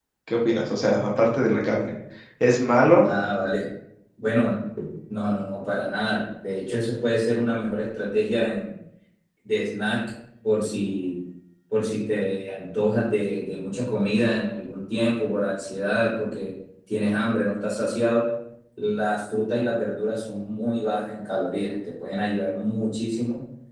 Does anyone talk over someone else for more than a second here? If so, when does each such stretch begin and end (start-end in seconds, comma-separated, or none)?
none